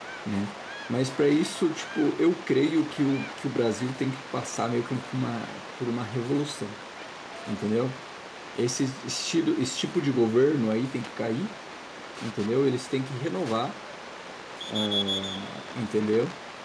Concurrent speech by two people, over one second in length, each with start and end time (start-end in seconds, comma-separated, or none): none